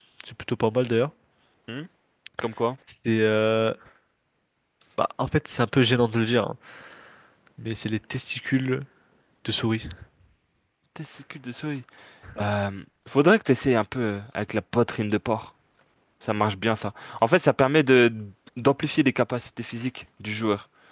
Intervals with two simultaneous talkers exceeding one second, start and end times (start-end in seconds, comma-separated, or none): none